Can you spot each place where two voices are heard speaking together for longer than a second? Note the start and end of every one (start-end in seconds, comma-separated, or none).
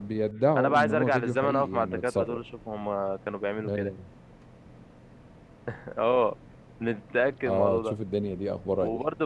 0.6-2.4